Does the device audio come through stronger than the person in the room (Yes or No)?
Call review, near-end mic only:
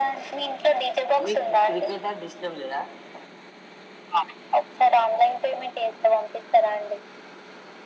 Yes